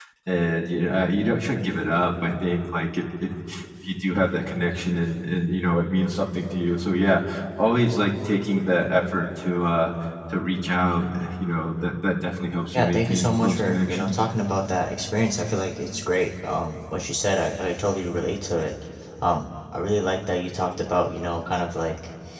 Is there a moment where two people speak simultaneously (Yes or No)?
Yes